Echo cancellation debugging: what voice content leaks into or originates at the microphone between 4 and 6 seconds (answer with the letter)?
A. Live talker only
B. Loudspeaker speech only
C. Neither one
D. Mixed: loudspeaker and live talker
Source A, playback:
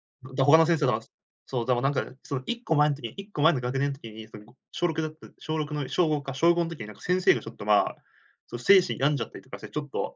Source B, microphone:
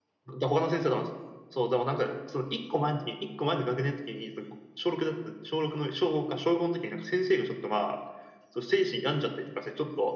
B